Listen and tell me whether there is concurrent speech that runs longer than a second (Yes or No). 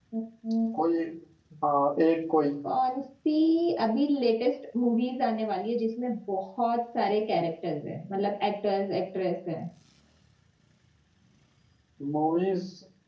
No